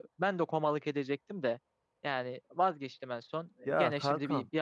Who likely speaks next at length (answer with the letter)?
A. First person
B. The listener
A